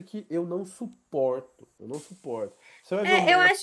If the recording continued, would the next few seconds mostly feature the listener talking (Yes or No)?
Yes